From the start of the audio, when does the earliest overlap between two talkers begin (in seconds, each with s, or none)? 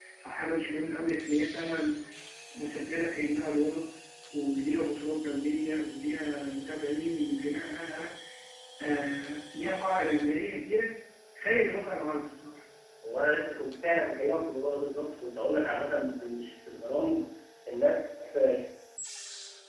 none